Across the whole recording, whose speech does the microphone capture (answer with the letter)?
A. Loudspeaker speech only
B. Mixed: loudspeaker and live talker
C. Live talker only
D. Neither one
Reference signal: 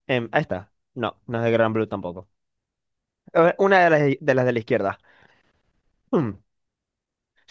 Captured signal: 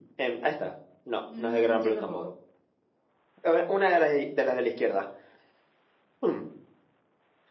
B